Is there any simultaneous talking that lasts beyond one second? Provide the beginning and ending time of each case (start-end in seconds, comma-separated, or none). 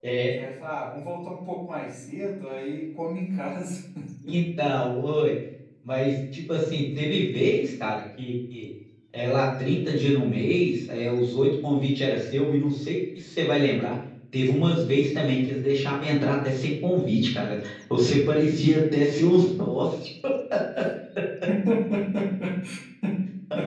none